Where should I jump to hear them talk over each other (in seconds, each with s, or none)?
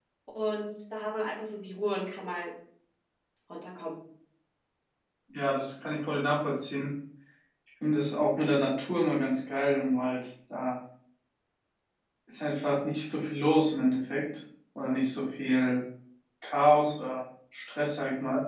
none